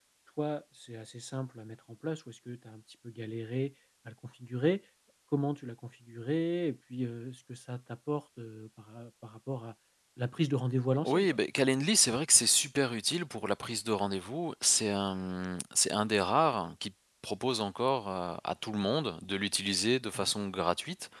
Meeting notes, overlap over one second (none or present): none